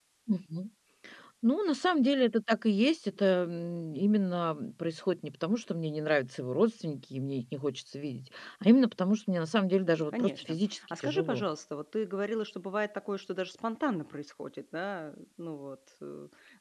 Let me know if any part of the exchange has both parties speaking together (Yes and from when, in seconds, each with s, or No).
Yes, from 10.1 s